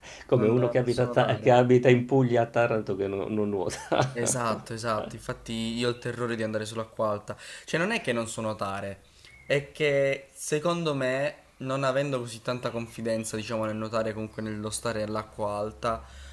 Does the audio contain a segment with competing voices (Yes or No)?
Yes